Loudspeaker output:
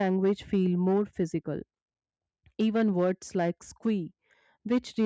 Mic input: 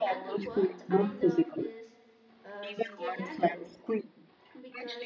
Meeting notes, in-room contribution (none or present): present